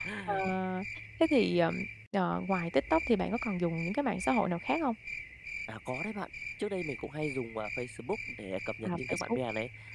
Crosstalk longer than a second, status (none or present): none